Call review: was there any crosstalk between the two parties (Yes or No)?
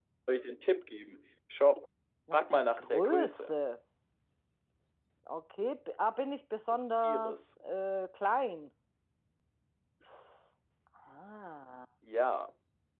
Yes